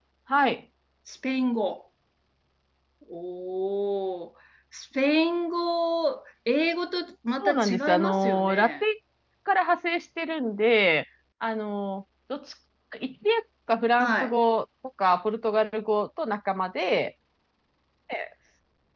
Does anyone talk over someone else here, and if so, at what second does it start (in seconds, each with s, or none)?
7.4 s